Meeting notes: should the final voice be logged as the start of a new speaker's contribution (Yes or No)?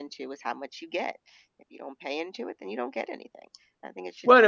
Yes